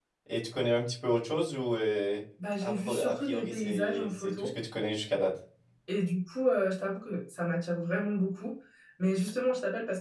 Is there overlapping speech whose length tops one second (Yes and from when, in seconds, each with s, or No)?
Yes, from 2.6 s